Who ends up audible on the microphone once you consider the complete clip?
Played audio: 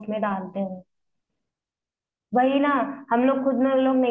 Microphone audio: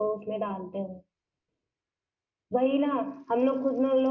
echo only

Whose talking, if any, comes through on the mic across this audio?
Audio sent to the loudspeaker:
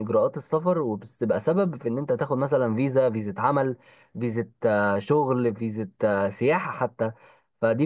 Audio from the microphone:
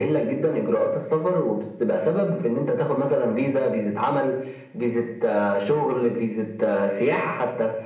echo only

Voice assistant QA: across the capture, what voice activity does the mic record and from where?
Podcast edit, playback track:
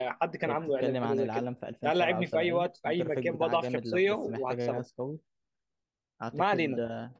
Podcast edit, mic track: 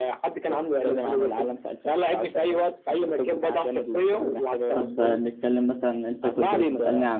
both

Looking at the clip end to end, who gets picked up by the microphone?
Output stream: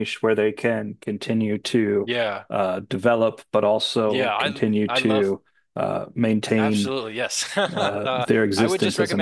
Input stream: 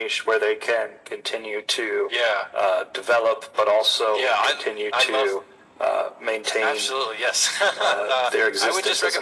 echo only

